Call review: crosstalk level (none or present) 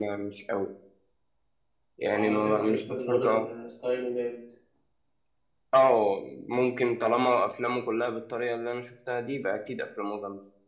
present